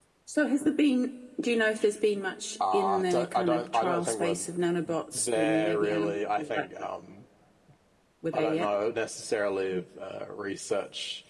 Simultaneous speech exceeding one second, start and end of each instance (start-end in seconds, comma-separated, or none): 2.7-4.5, 5.1-6.7